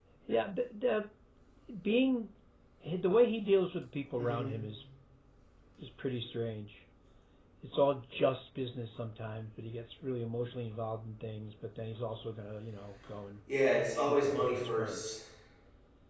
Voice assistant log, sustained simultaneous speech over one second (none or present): present